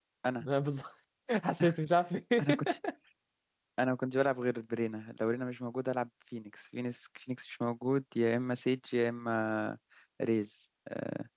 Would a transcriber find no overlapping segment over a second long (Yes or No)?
Yes